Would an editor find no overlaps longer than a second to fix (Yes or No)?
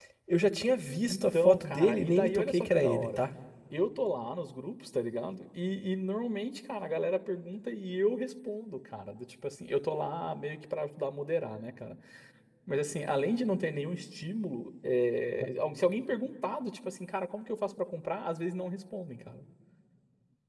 No